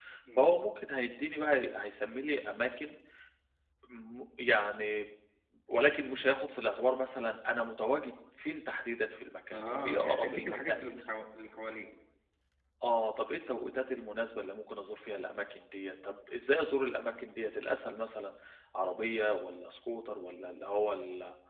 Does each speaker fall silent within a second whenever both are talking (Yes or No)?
No